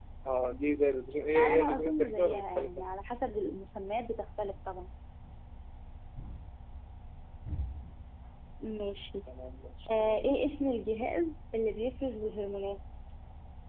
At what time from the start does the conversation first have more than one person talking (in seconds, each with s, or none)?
1.4 s